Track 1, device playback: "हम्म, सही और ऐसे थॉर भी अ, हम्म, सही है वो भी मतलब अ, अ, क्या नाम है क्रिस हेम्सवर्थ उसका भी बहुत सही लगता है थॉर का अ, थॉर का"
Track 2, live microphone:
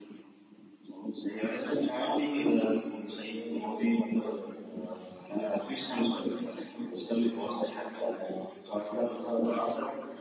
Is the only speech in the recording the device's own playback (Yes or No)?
Yes